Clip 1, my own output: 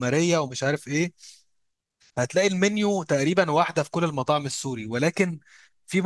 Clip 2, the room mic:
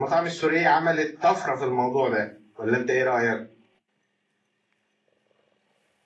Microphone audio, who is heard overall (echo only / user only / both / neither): user only